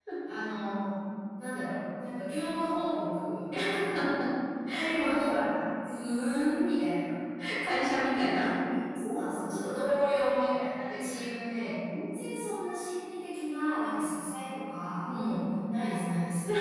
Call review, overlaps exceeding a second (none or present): none